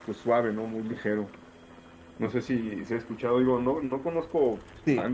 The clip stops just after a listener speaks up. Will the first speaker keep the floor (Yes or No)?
Yes